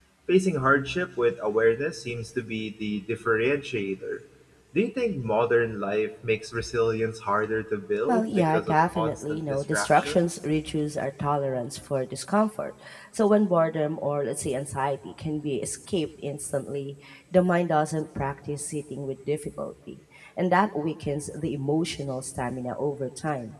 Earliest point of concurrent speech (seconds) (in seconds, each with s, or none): 8.1 s